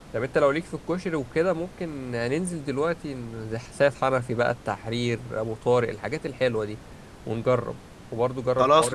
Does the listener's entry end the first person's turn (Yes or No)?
Yes